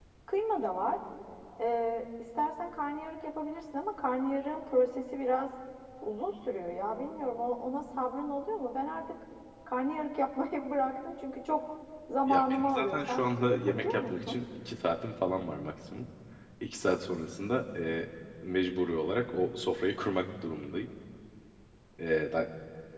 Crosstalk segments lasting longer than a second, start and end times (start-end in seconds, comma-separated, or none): 12.3-14.4